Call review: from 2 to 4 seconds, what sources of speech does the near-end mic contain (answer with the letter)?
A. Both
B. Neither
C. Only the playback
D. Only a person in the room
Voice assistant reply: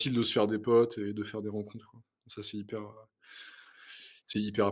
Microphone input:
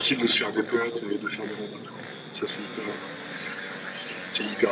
C